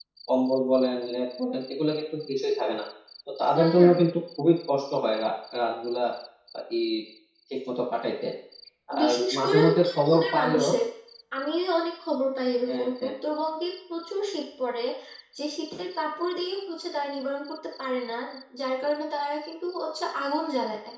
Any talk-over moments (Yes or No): Yes